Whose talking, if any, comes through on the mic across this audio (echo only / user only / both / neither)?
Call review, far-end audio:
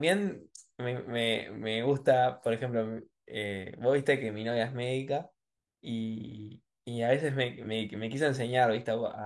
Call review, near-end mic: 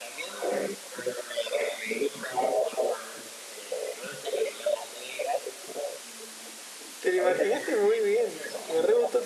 both